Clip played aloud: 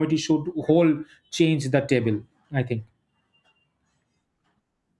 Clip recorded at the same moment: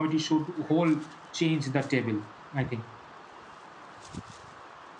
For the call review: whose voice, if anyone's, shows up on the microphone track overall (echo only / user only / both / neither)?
echo only